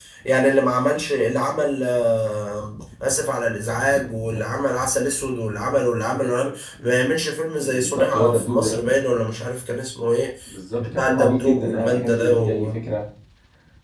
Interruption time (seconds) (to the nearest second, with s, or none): 8 s